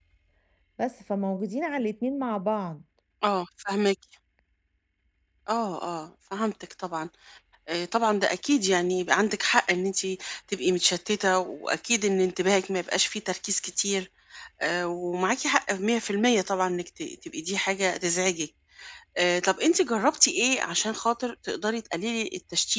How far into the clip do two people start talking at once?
none

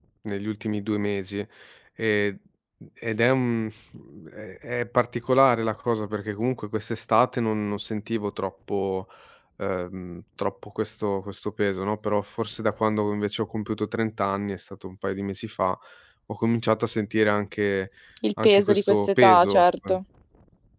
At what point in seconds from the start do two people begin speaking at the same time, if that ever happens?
18 s

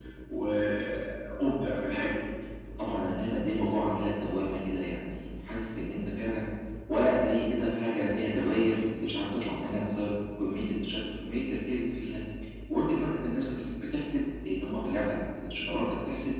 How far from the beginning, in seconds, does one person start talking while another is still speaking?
none

